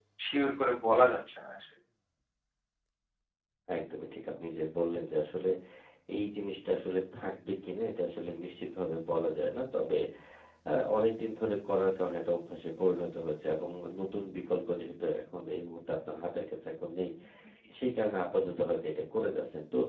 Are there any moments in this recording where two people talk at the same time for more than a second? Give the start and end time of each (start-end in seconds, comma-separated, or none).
none